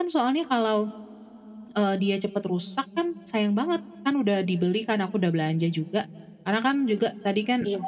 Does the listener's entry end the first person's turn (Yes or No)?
No